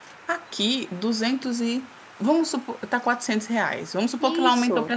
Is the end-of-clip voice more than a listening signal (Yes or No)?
No